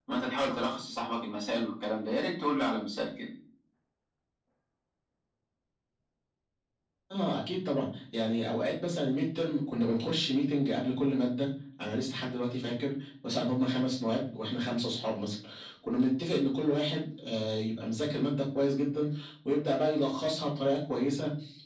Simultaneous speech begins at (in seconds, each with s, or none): none